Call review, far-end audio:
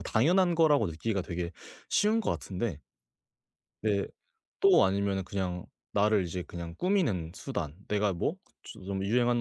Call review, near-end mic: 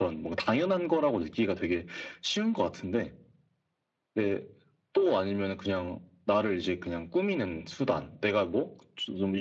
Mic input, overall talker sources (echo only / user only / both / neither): echo only